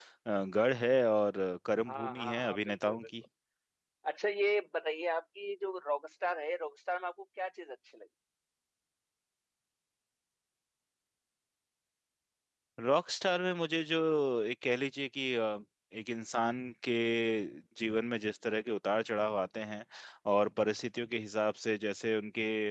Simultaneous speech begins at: 1.9 s

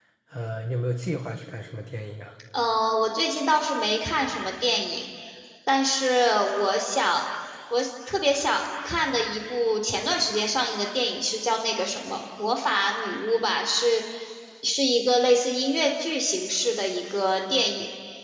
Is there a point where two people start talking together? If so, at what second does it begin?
none

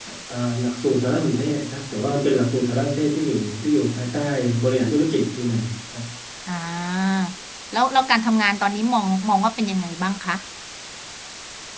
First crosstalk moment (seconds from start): none

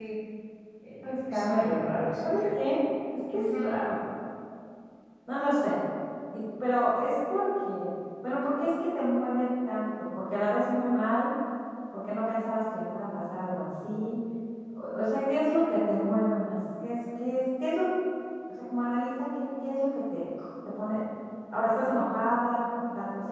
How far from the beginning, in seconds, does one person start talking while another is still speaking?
1.0 s

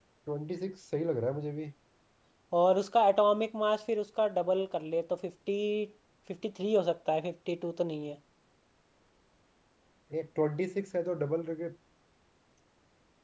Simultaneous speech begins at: none

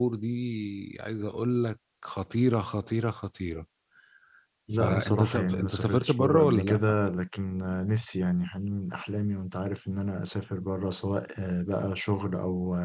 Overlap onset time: 4.7 s

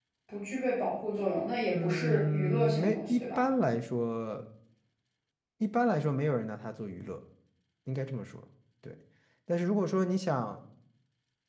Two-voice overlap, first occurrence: 1.7 s

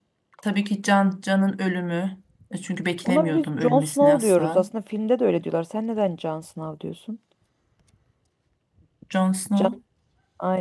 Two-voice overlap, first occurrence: 3.0 s

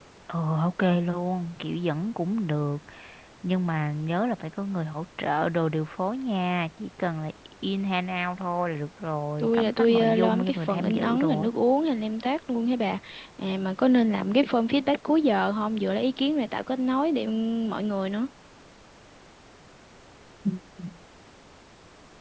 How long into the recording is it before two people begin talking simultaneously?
9.4 s

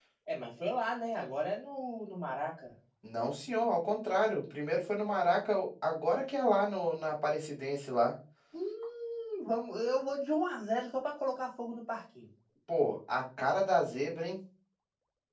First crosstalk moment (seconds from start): none

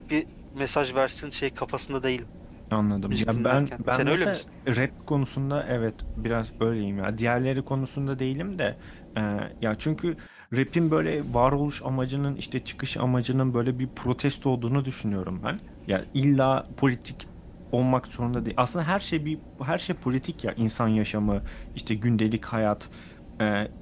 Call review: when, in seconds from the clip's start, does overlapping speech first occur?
3.1 s

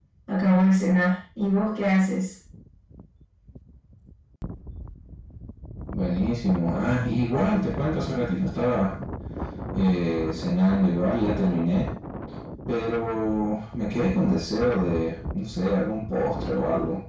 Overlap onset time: none

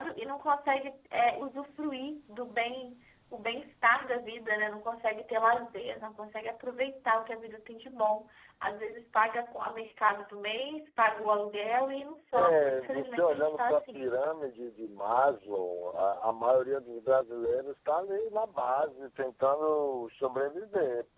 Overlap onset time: 12.3 s

